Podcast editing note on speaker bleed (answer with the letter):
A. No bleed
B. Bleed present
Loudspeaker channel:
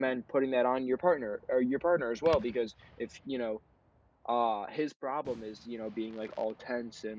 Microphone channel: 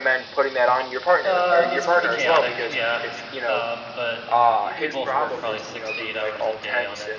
B